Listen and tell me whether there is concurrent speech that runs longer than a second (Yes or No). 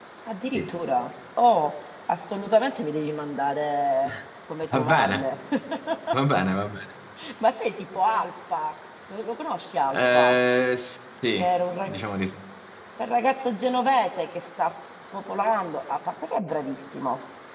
No